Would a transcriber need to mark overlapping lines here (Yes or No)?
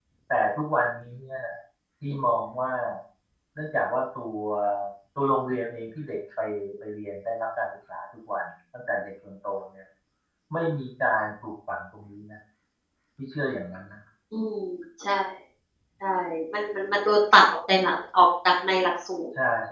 No